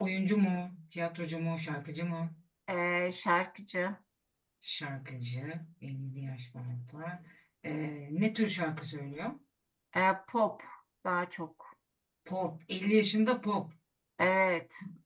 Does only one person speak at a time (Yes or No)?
Yes